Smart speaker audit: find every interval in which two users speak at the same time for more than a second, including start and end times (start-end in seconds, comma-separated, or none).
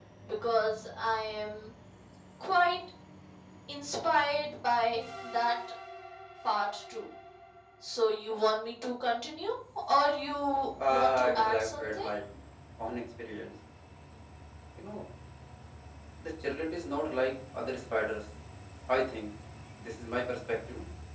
10.9-12.1